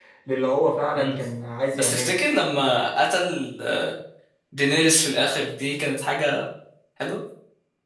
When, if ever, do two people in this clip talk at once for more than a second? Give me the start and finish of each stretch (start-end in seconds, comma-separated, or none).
none